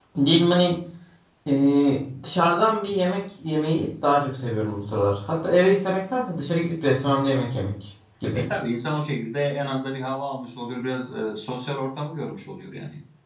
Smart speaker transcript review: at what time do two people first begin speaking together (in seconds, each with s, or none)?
none